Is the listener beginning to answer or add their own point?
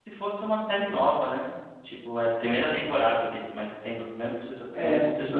Yes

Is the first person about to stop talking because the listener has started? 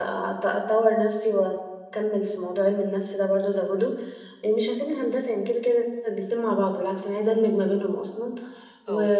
No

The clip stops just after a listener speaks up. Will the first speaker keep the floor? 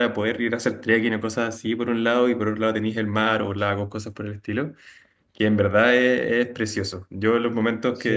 No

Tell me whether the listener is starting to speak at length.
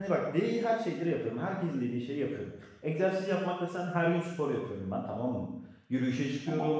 No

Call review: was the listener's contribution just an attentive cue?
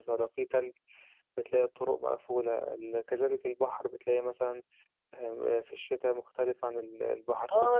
No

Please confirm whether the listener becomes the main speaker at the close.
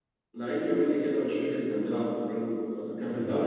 No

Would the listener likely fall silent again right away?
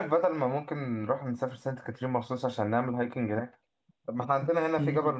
Yes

